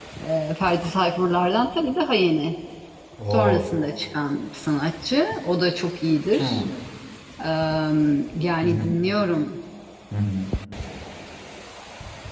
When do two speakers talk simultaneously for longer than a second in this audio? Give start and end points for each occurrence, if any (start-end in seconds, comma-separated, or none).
none